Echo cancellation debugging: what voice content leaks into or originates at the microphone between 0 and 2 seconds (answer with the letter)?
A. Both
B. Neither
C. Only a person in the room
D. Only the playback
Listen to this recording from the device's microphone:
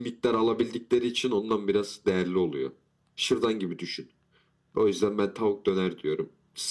D